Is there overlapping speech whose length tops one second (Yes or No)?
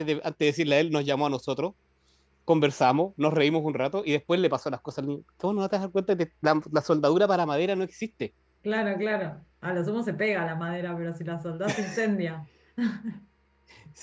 No